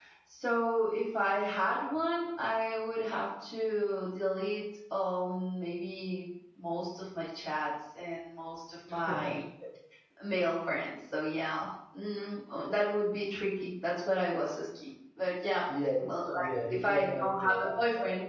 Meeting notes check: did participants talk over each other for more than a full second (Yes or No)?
Yes